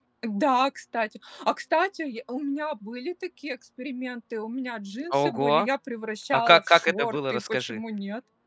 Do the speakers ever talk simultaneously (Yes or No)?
Yes